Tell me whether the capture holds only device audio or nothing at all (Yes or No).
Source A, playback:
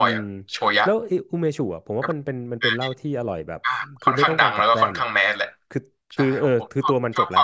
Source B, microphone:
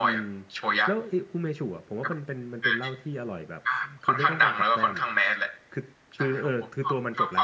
Yes